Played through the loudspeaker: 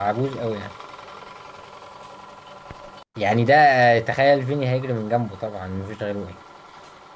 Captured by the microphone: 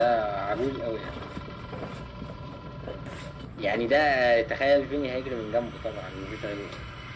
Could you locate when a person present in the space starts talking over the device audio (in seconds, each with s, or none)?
none